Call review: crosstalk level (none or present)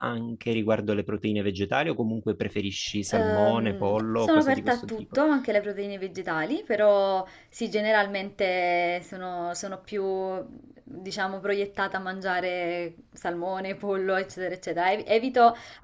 present